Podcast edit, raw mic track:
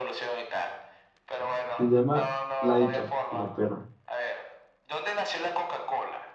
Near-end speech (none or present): present